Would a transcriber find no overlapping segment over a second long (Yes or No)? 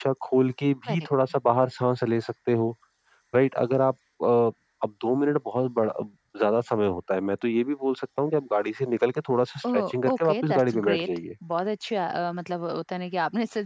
No